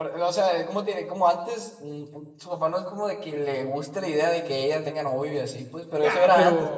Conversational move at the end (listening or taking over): taking over